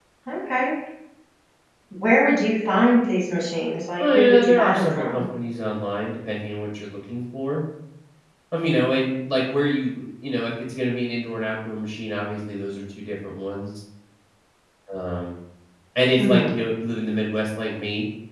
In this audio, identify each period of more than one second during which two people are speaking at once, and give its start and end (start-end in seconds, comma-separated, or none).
4.0-5.2